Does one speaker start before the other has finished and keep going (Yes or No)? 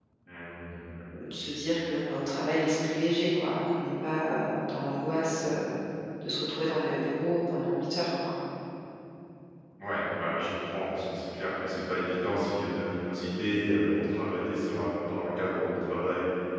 No